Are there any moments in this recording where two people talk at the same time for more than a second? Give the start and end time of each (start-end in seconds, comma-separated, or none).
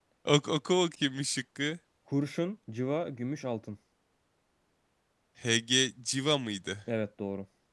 none